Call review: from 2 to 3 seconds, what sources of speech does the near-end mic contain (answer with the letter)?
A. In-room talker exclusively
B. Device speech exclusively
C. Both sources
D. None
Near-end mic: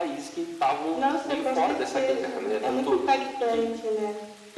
B